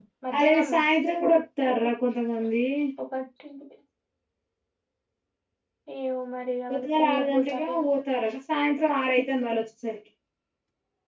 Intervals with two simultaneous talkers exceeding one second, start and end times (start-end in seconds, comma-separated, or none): 6.7-7.9